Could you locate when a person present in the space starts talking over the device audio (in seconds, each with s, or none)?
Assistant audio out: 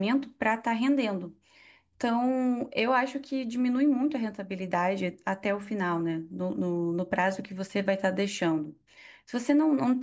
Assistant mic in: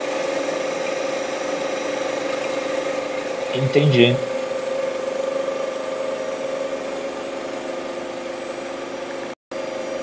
3.5 s